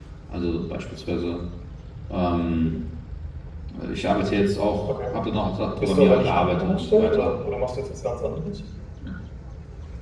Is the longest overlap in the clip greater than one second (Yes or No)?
Yes